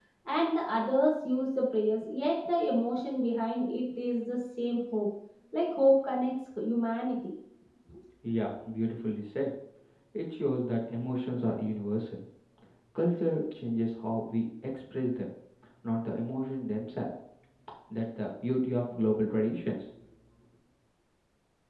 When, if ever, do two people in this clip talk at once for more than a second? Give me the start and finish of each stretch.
none

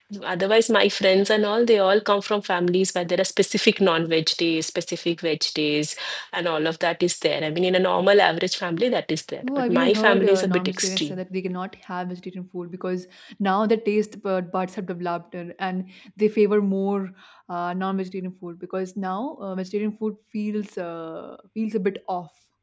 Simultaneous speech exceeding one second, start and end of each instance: 9.4-11.2

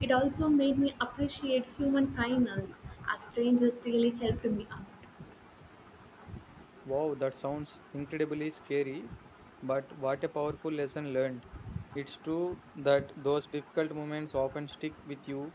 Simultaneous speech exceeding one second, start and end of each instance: none

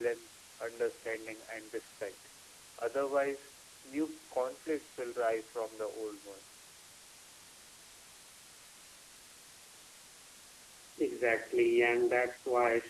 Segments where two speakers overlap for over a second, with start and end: none

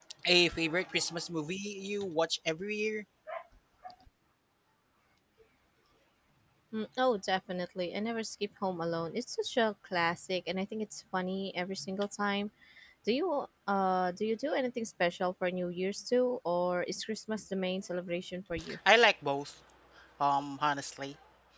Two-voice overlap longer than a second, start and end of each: none

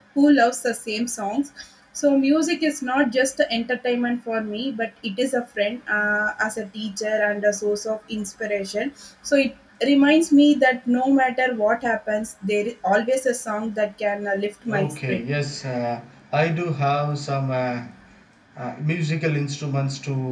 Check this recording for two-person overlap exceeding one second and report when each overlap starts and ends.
none

